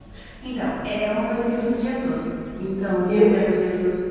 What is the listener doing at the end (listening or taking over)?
listening